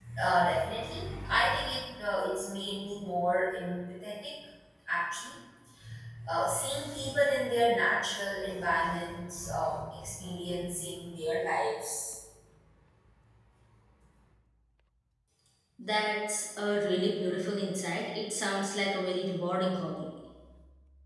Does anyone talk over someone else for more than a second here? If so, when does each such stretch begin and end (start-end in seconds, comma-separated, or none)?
none